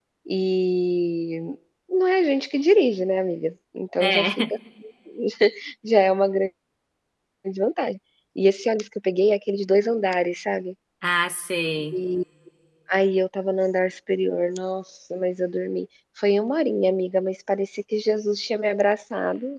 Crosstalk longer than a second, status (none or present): none